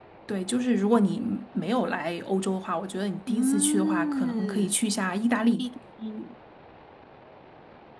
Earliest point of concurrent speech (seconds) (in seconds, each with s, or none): 3.3 s